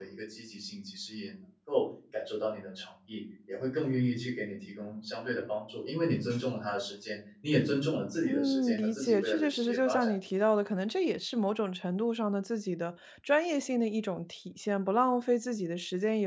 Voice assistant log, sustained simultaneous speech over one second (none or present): present